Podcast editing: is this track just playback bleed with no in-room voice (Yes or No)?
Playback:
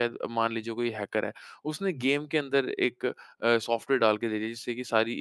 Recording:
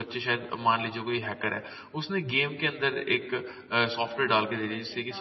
No